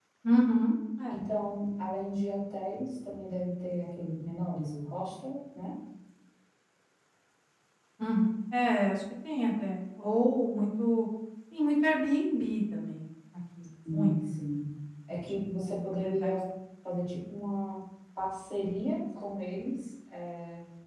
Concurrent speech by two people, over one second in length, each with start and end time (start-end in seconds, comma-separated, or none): 15.1-16.4